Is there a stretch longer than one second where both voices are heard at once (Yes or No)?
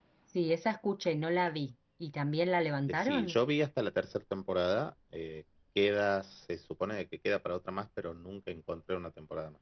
No